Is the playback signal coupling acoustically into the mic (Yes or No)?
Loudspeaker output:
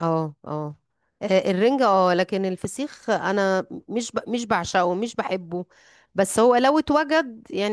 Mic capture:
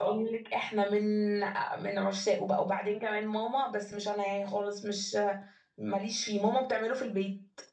No